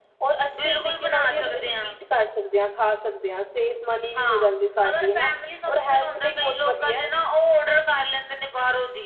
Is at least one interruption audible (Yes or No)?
Yes